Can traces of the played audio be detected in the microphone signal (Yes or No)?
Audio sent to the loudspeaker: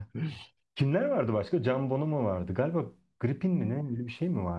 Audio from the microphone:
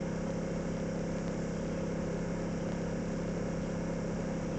No